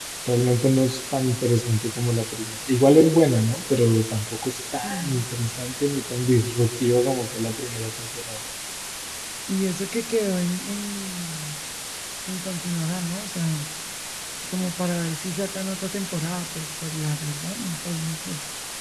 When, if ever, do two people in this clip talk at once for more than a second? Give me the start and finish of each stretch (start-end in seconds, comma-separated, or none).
none